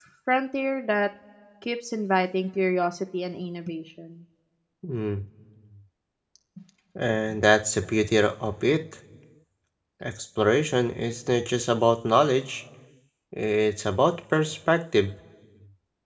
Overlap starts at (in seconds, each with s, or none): none